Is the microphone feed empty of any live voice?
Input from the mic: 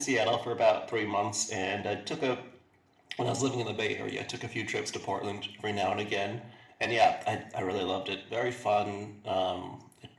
Yes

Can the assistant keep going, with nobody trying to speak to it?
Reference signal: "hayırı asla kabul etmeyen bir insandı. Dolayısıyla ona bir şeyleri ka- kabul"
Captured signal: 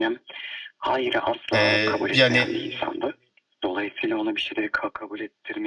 No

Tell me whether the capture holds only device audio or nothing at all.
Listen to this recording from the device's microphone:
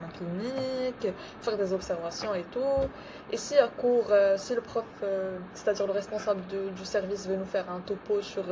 No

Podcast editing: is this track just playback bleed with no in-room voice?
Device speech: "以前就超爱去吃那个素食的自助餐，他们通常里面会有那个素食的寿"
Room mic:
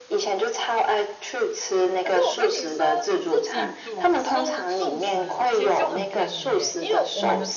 No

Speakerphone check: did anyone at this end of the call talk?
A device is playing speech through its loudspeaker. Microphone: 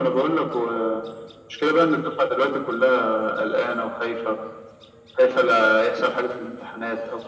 No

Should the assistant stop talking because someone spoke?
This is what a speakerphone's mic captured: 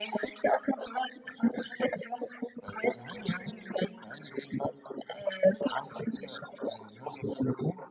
No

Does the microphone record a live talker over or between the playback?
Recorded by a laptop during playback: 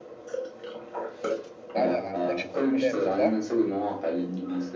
Yes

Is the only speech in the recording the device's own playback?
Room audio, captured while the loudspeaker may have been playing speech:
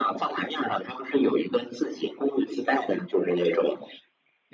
Yes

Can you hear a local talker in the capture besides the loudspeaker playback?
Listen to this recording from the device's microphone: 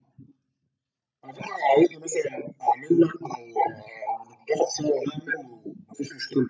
No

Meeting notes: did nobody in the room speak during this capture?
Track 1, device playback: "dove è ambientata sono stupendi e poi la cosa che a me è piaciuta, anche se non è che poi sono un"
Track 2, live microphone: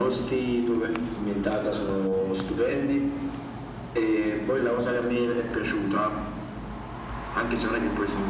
Yes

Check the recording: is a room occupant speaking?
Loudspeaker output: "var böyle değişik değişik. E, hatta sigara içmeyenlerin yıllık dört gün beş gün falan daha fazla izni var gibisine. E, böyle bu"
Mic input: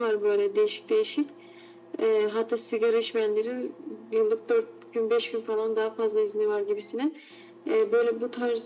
No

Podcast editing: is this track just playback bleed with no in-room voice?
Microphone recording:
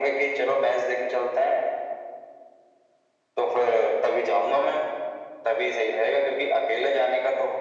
Yes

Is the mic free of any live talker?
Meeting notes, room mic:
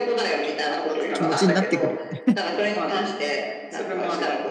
No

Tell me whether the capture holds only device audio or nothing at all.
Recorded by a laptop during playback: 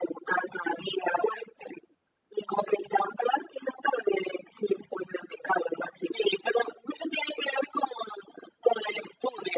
Yes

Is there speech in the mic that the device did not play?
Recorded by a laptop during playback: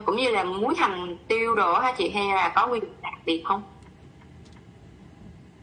No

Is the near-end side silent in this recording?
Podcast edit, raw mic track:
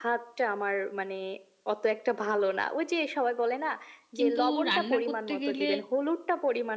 No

